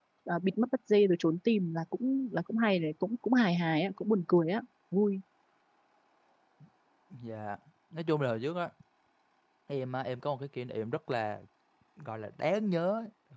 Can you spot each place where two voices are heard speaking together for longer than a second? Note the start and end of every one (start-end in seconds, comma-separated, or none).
none